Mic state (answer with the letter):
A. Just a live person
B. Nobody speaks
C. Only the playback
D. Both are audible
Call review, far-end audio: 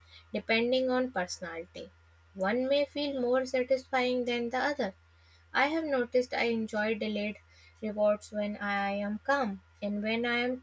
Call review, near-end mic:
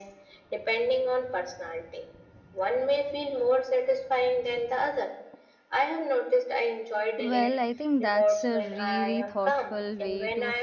D